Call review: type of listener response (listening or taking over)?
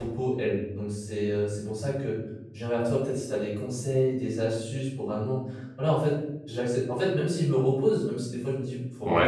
listening